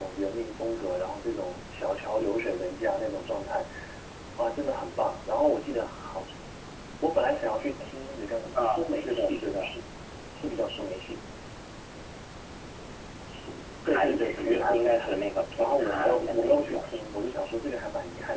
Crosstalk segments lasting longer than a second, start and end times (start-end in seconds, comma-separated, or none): 8.6-9.8, 13.8-15.1, 15.6-16.9